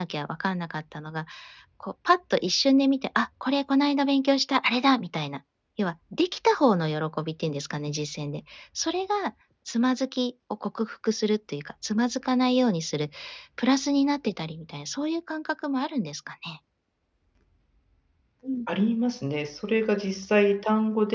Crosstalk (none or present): none